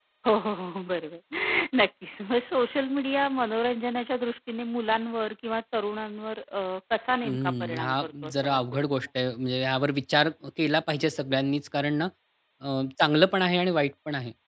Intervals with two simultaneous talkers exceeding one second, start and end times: 7.2-8.9

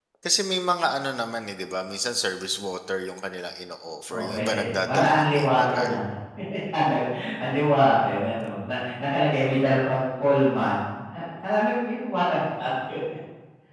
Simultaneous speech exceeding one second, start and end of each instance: 4.1-5.9

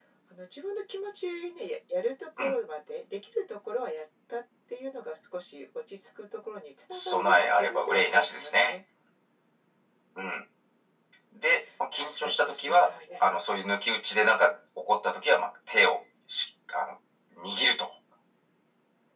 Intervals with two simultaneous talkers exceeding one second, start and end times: 6.9-8.8, 11.9-13.3

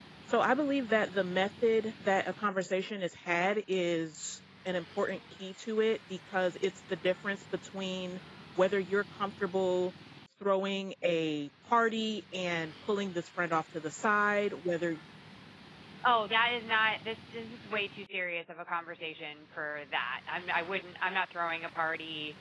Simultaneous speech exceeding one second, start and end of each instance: none

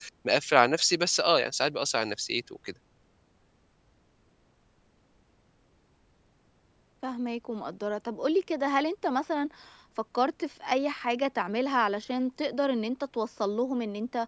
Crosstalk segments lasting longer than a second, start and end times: none

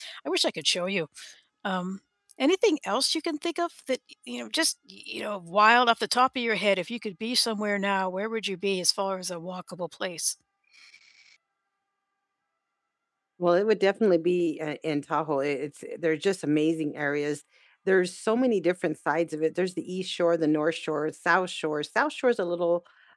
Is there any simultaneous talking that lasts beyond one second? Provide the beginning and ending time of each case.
none

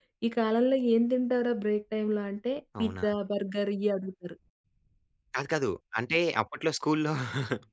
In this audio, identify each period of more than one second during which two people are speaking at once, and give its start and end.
none

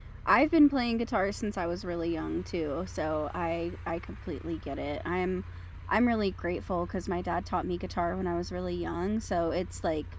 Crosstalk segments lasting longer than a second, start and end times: none

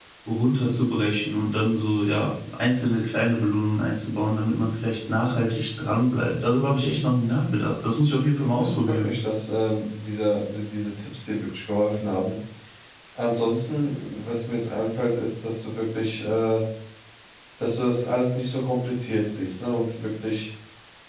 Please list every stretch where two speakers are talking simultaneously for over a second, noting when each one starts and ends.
none

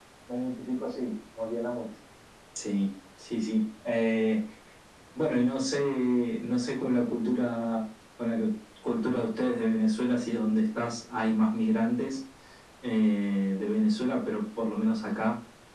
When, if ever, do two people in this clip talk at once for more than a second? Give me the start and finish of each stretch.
none

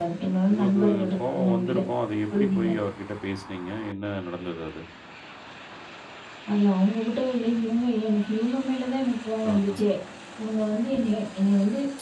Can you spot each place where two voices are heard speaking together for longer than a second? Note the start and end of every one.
0.5-1.8

